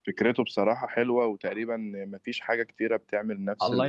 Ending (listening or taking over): taking over